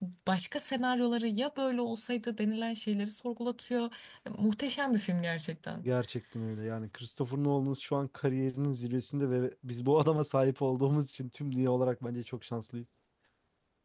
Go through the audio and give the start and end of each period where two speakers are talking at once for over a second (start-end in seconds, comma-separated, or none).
none